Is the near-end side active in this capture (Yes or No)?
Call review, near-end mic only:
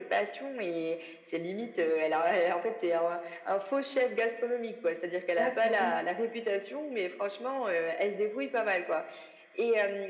Yes